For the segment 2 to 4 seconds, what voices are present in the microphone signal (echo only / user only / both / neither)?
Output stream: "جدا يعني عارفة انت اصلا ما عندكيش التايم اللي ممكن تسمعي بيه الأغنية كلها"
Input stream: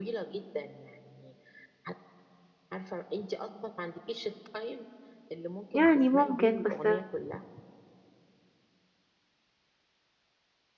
echo only